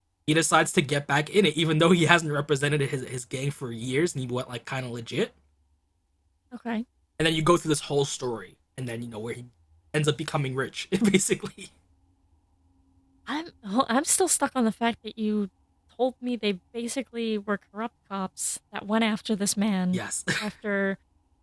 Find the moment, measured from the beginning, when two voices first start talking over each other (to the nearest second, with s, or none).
none